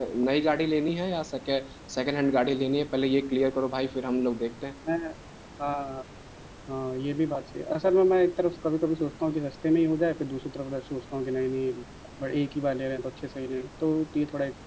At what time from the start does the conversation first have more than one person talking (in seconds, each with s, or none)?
none